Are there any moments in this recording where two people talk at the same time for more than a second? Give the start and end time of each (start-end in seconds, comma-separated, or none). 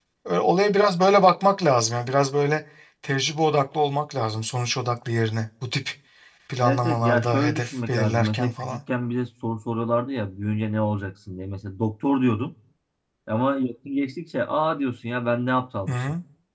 6.6-8.8